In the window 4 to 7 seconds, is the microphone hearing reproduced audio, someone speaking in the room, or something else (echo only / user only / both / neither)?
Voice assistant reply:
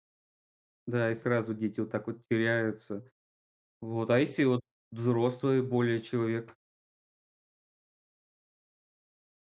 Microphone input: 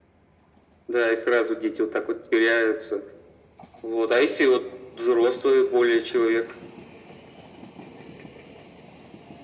echo only